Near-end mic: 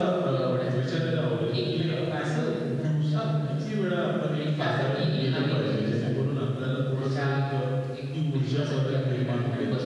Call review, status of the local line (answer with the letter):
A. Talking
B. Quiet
B